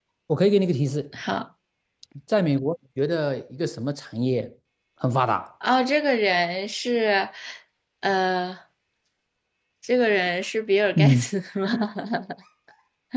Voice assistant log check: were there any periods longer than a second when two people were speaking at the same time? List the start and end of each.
none

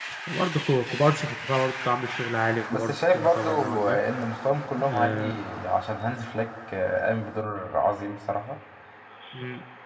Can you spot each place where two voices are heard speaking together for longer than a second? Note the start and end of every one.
2.7-4.0

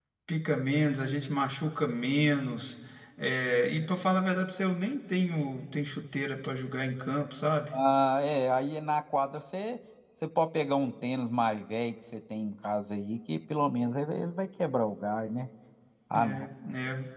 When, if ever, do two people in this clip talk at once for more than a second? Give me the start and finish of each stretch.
none

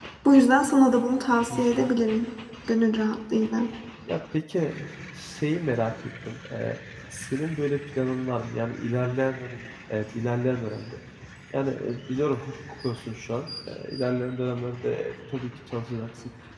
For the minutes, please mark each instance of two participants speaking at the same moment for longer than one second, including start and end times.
none

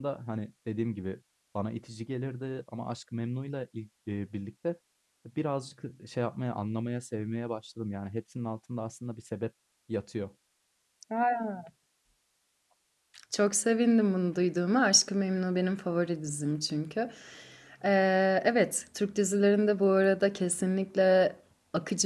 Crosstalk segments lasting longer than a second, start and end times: none

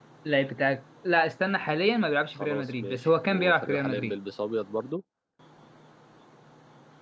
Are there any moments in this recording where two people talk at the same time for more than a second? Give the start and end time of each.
2.3-4.1

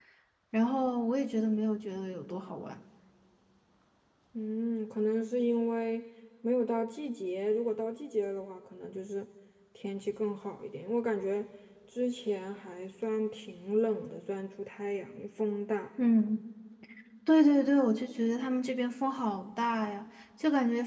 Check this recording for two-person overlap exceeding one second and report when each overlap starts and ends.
none

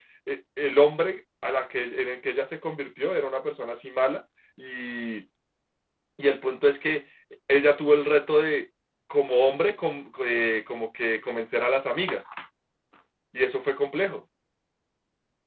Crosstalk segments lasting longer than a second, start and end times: none

